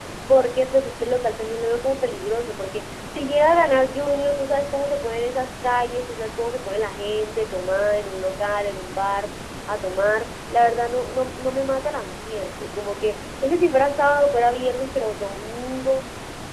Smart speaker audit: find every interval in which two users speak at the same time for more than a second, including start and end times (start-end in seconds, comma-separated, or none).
none